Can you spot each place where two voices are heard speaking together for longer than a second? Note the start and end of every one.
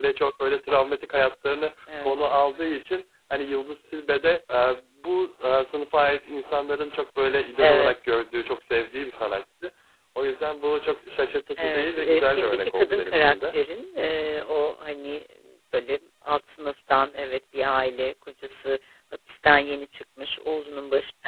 11.6-13.5

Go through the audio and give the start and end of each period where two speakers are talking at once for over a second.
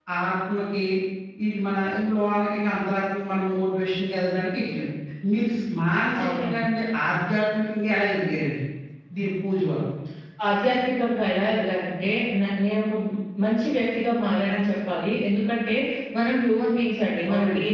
none

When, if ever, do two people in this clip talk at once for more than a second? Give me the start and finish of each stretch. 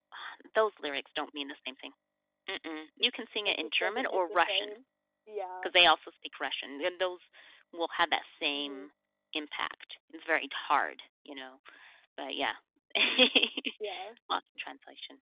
3.5-4.7

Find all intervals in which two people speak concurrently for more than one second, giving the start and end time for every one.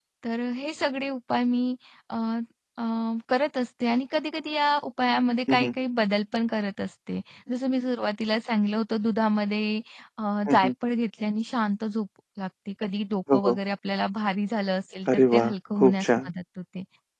15.1-16.3

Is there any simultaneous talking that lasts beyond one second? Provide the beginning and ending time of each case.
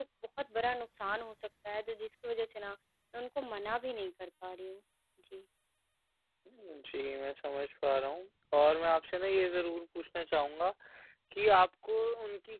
none

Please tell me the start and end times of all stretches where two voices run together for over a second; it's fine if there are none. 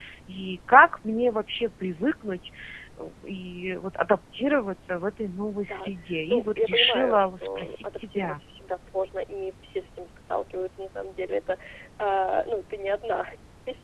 6.3-8.4

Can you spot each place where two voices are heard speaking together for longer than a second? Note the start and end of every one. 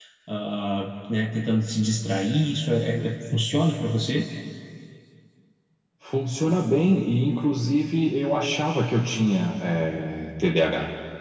none

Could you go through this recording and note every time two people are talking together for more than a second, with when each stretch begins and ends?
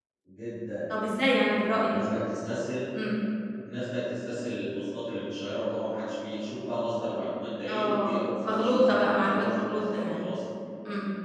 7.7-10.2

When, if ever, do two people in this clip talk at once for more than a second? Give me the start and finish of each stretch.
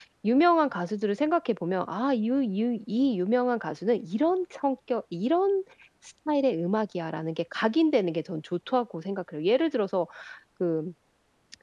none

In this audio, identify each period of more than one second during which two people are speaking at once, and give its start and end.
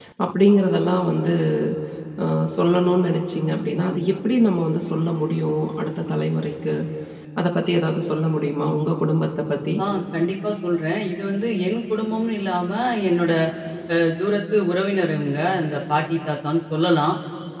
none

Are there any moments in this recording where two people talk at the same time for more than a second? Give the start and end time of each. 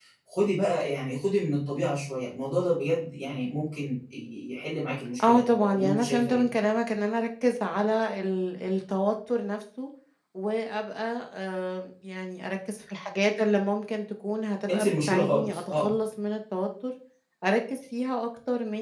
5.2-6.4, 14.7-15.9

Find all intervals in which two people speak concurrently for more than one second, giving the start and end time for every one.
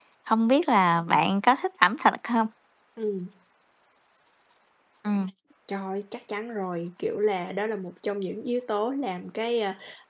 none

